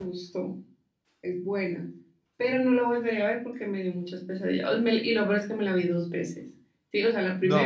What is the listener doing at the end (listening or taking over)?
listening